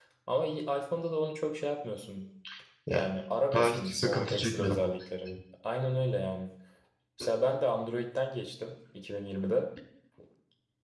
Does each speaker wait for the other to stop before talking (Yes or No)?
No